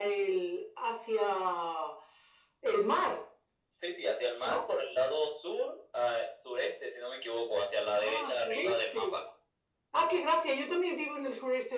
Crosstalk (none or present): present